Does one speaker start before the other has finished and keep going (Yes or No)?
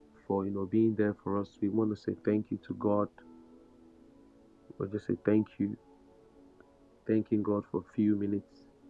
No